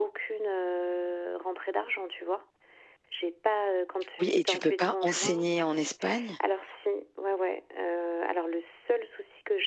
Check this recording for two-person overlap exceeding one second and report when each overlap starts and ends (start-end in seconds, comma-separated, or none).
4.2-5.5